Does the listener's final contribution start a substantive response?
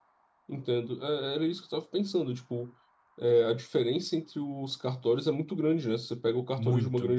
No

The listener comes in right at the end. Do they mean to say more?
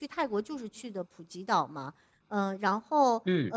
No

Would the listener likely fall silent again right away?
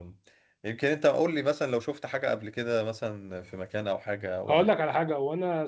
No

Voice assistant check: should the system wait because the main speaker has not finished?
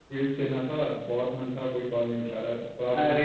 No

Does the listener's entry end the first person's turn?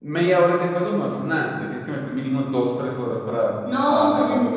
Yes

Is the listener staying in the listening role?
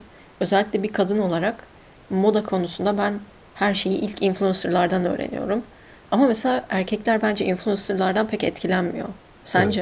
No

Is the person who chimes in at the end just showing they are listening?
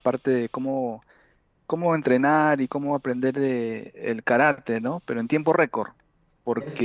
No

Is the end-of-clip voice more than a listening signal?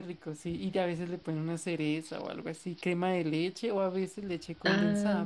Yes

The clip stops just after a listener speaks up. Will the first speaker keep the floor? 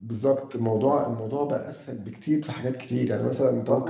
No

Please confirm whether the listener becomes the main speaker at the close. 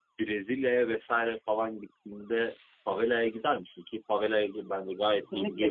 Yes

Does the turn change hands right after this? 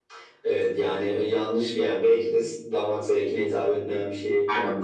Yes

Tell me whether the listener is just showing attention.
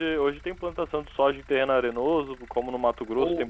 No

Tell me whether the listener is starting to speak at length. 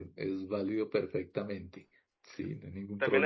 Yes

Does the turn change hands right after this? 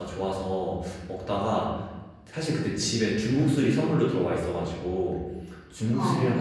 No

